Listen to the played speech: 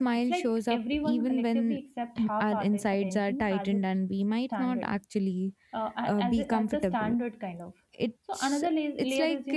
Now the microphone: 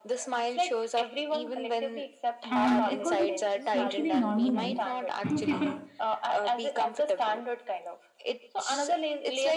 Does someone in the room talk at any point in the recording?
Yes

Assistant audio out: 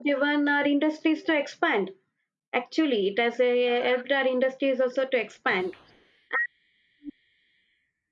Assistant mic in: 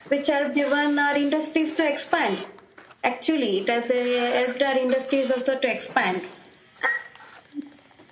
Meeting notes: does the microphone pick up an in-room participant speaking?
No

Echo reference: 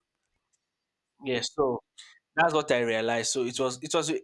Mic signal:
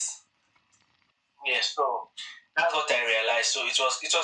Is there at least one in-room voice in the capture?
No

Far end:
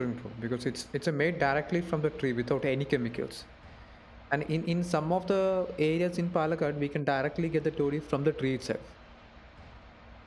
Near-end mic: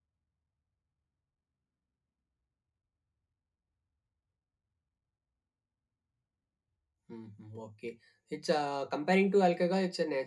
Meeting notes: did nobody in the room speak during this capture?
No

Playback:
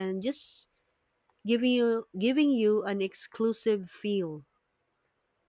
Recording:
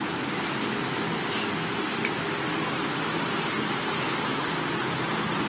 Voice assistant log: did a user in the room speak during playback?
No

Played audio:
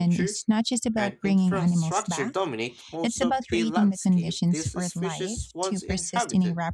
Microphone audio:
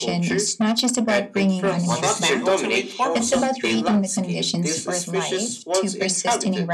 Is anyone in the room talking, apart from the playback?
Yes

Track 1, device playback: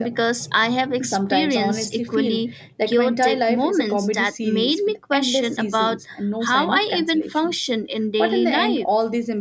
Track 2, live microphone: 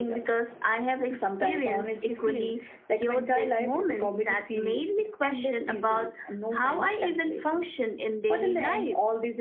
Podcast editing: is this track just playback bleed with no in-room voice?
Yes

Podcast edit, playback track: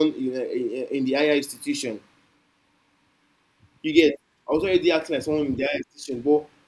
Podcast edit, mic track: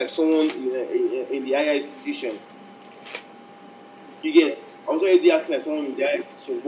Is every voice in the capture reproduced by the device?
Yes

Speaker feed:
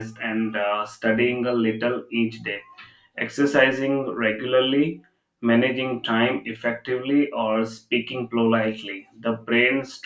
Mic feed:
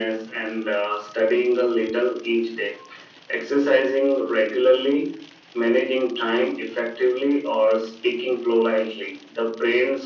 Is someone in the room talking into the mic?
No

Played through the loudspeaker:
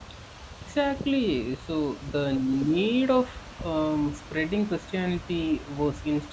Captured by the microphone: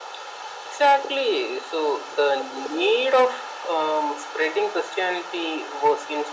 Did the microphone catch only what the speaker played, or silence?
Yes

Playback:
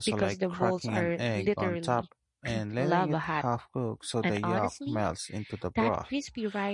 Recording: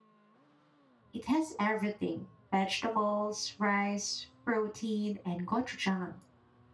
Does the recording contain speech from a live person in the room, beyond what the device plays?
Yes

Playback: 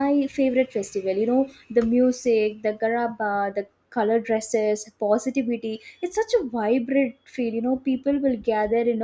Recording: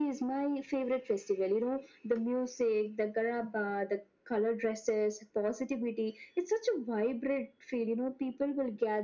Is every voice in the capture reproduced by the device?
Yes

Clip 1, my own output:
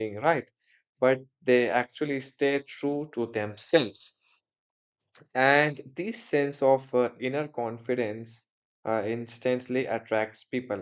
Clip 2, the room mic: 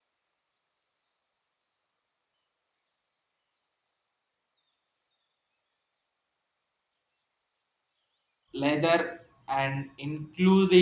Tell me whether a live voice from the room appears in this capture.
Yes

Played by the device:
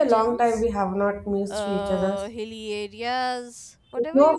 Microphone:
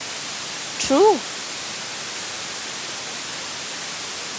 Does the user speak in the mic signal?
Yes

